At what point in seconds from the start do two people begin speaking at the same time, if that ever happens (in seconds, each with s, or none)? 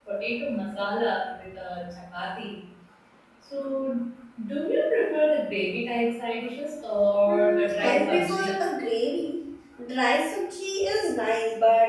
7.2 s